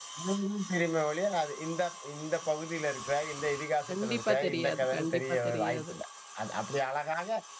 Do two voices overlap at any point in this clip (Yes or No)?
Yes